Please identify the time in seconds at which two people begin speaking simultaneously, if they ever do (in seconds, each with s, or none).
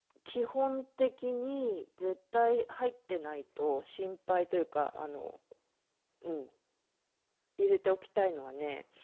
none